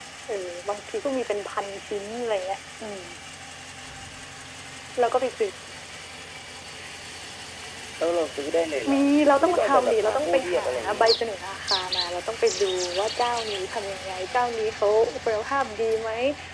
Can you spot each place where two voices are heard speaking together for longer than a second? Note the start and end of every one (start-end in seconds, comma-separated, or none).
9.4-11.1